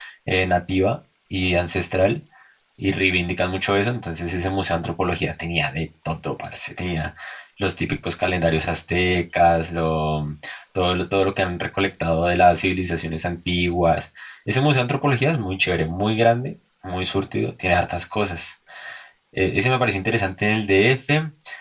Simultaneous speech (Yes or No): No